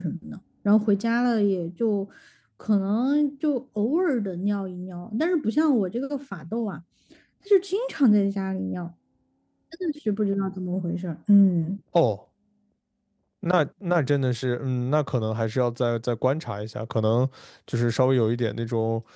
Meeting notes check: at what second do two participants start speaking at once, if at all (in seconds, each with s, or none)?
none